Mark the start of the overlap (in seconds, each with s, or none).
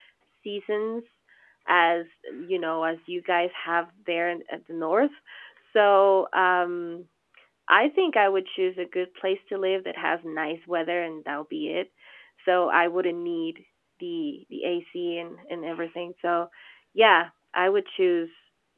none